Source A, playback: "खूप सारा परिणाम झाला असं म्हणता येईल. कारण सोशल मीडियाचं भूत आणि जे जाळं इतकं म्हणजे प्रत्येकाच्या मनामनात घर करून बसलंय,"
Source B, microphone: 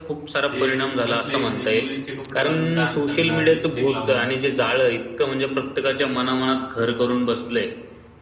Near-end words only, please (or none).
जे कसलेही म्हणजे मुलींचे कपडे घालून डान्स करणार, लिपस्टिक लावणार.